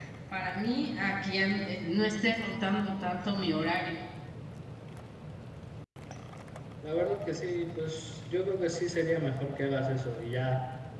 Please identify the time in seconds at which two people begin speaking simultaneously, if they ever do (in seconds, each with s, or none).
none